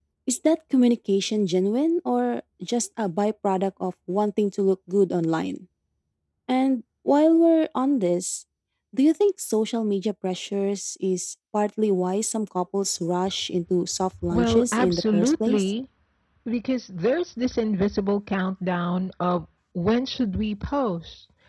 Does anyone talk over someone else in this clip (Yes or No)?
Yes